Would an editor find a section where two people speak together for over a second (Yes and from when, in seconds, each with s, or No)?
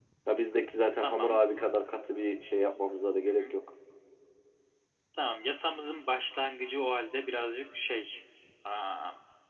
No